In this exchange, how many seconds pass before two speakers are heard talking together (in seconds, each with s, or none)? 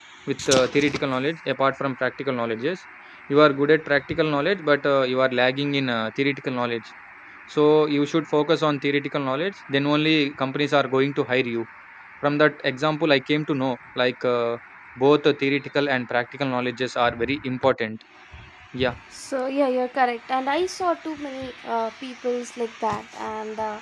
none